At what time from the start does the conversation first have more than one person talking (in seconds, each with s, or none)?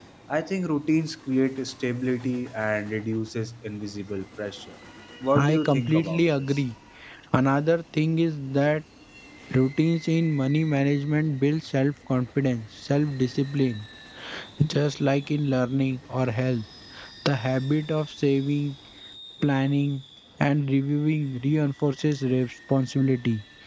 5.4 s